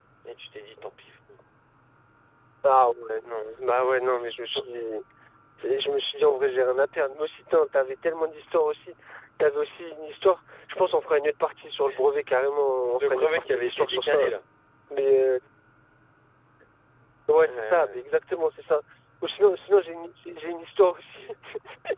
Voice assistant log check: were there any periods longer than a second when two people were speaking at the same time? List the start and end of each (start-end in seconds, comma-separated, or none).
12.9-14.3